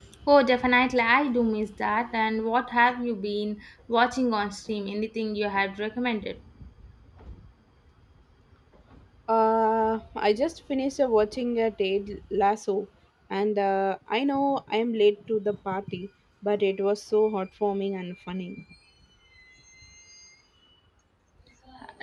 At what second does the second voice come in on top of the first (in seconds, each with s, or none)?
none